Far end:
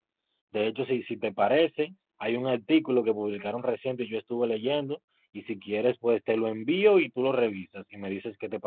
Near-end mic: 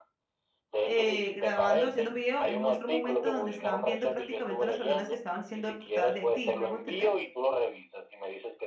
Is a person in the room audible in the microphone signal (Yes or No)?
Yes